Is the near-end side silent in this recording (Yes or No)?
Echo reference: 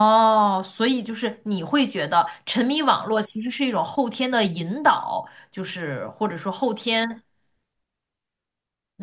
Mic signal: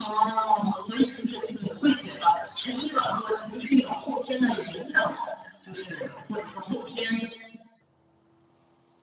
Yes